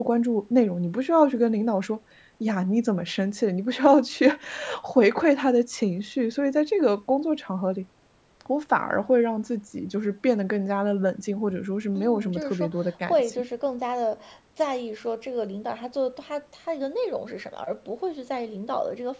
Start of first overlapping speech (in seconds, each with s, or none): 11.9 s